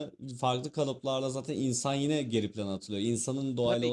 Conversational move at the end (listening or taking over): taking over